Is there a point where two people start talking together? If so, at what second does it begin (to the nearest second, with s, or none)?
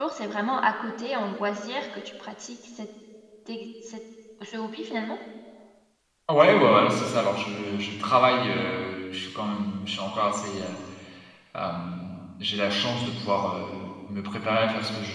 none